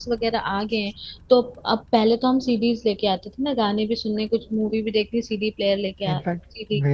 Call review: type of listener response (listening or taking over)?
taking over